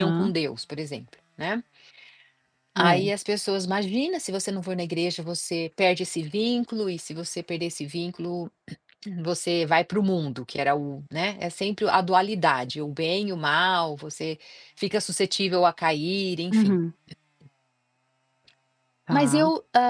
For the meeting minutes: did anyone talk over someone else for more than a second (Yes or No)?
No